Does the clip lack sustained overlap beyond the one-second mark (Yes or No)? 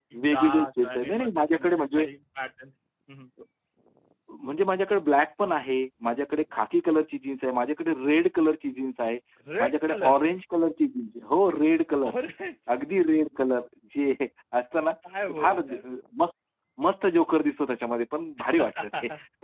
No